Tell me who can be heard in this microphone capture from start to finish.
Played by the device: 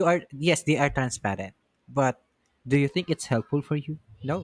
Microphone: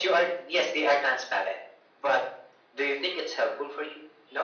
echo only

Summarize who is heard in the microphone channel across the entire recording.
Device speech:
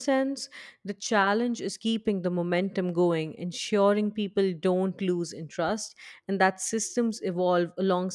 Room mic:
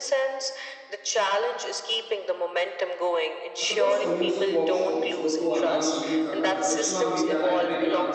both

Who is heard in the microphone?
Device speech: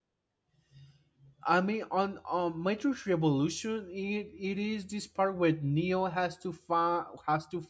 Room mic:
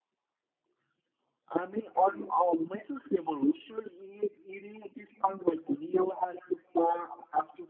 both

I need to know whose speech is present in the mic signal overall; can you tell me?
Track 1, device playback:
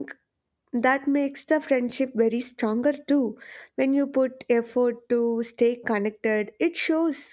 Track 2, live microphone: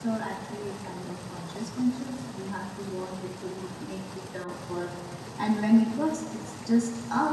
user only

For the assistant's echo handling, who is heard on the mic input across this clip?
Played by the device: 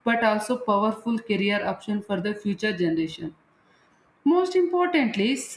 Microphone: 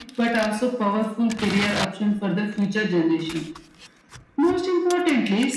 echo only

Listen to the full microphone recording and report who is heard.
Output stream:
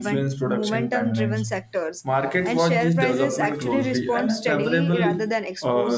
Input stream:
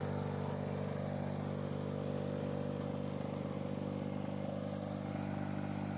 neither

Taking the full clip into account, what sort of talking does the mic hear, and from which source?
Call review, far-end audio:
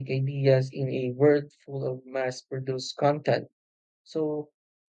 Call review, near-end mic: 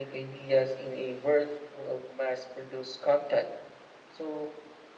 echo only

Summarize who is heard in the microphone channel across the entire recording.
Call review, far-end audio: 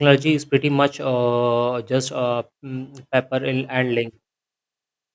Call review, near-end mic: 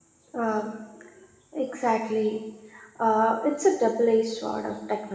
user only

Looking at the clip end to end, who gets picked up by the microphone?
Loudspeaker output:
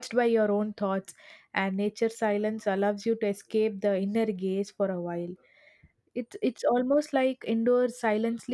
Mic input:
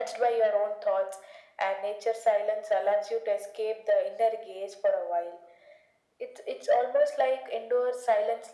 echo only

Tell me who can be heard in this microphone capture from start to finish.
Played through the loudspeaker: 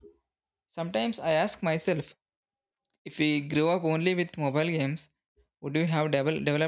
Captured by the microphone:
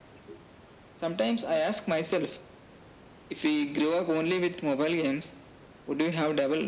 echo only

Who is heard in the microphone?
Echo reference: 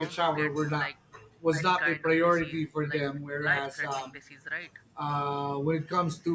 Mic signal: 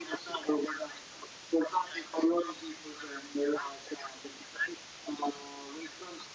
echo only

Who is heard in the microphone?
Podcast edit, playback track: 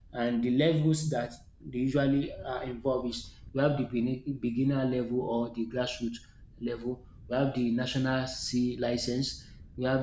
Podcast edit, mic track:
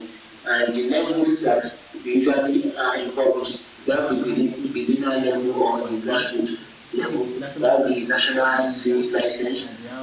both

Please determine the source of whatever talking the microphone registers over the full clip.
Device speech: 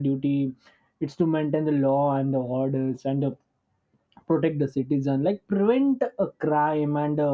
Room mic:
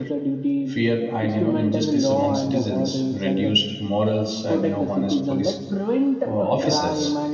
both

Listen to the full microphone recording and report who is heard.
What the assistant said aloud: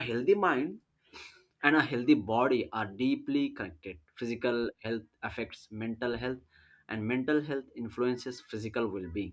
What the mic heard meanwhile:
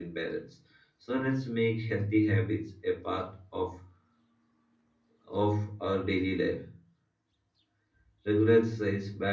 user only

